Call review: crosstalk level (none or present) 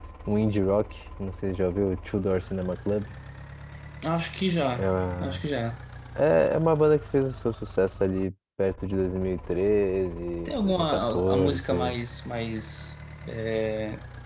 present